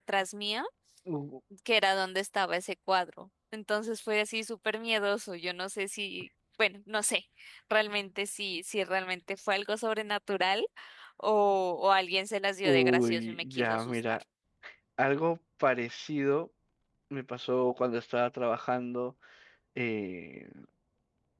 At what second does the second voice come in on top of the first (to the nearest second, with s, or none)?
13 s